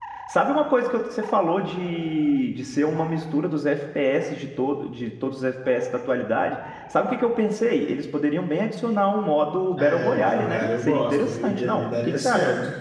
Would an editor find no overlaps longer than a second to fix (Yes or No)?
No